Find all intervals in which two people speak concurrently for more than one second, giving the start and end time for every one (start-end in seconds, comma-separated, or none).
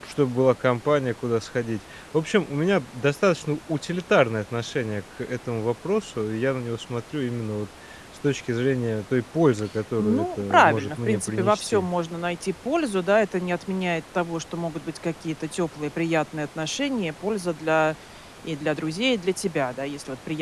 10.0-11.9